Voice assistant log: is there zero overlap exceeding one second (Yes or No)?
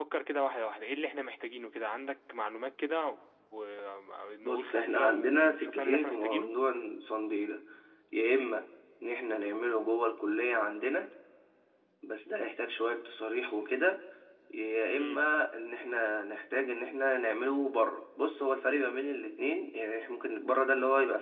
No